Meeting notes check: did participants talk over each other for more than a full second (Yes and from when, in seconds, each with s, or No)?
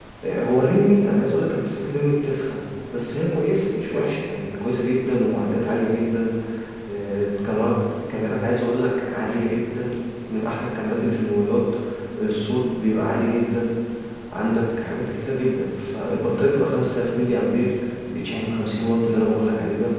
No